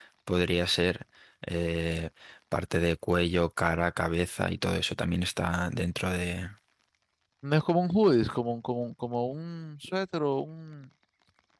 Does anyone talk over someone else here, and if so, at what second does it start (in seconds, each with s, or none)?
none